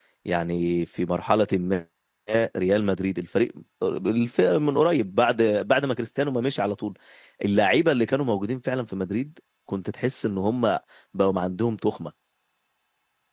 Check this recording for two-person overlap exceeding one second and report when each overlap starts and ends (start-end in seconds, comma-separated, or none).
none